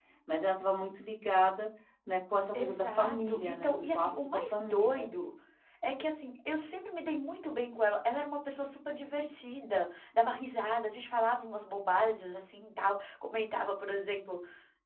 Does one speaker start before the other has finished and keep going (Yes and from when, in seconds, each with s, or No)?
Yes, from 2.5 s